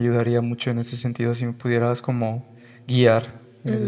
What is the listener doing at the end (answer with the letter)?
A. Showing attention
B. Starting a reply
B